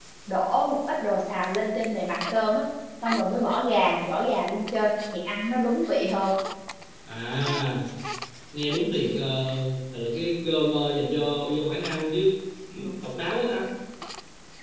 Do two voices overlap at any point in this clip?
No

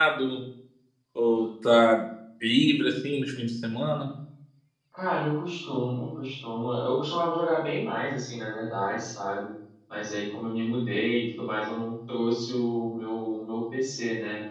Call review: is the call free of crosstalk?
Yes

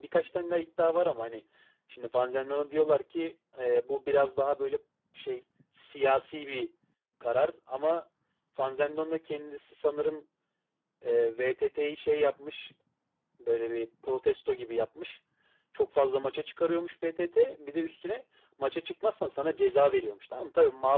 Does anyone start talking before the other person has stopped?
No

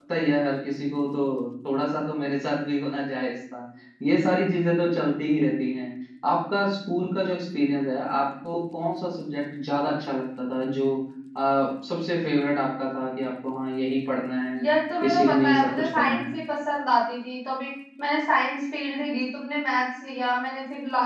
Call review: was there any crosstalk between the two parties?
Yes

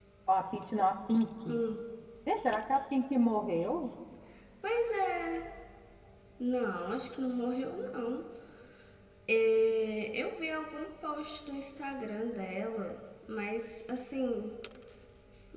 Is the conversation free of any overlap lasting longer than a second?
Yes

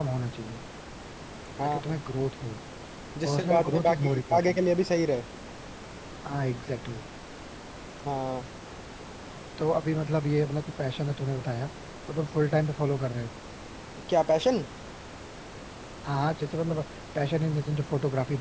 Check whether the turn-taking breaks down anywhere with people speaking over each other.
Yes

